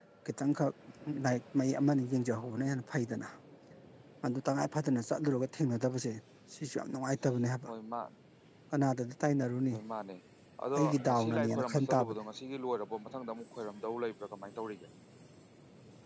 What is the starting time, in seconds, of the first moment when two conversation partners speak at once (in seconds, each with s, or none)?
10.8 s